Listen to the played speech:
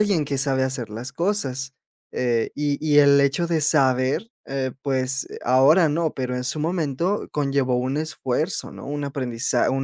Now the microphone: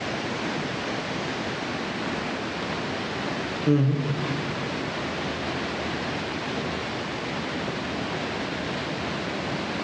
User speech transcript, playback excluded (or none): ujú,